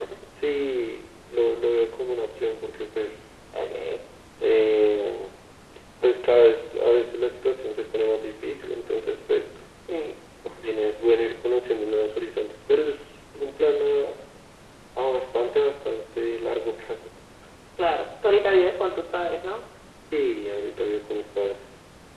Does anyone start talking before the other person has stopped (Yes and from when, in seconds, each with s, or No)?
No